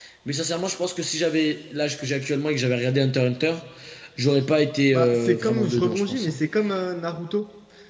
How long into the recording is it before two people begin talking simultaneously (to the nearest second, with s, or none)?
5 s